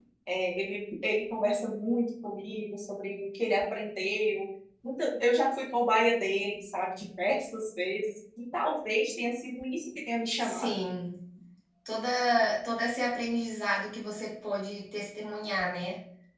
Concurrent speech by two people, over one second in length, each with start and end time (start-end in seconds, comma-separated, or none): none